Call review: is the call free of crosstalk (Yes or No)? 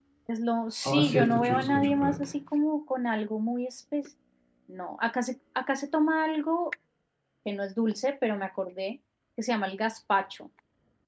No